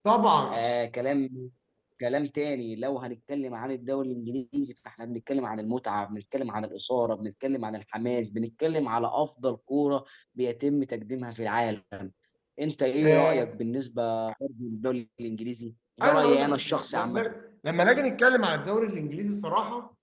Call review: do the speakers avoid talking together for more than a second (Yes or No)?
No